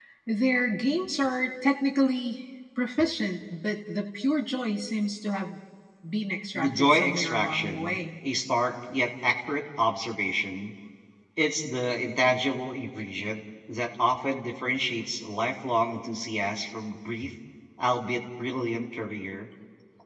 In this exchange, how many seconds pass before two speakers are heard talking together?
6.5 s

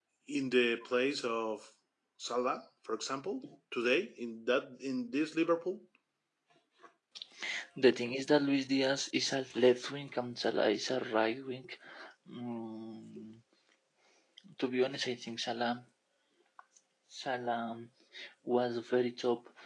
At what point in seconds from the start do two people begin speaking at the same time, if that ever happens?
none

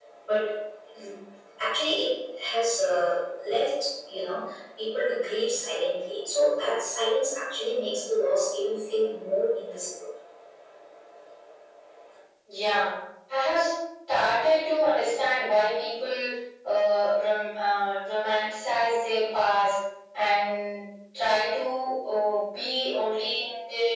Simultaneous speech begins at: none

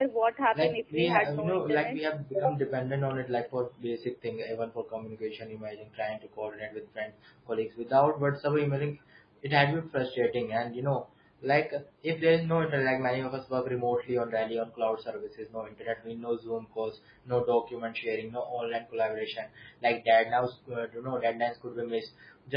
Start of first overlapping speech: 0.6 s

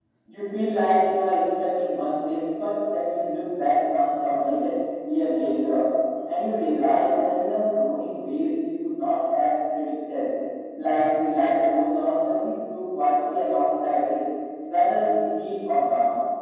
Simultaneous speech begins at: none

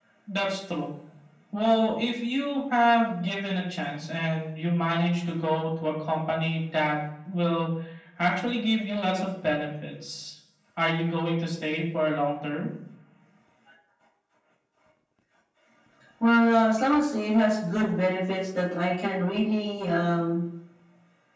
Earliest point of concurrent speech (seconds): none

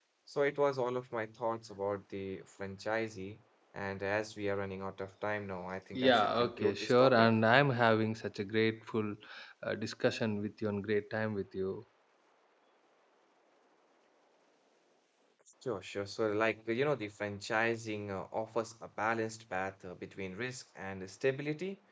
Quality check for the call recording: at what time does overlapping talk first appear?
5.9 s

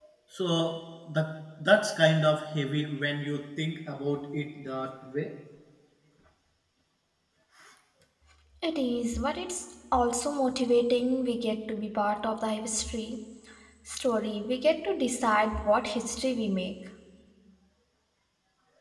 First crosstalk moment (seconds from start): none

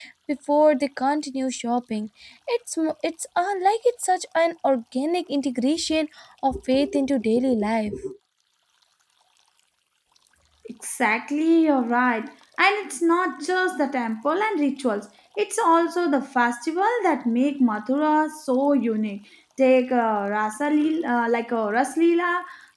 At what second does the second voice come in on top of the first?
none

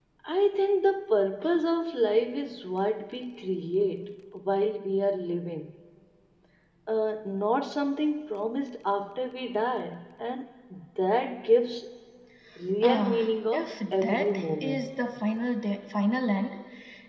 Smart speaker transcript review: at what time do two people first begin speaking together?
12.8 s

